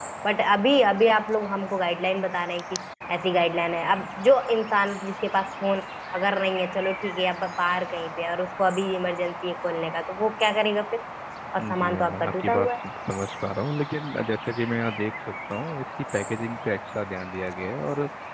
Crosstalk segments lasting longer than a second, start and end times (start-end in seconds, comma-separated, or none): 11.6-12.8